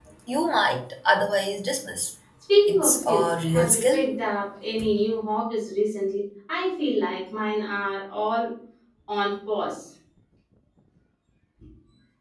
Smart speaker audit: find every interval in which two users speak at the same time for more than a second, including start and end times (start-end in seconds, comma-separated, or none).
2.7-4.0